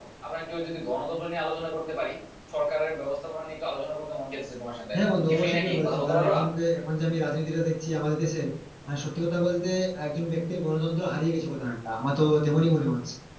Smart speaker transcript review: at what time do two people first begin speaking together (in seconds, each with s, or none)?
4.9 s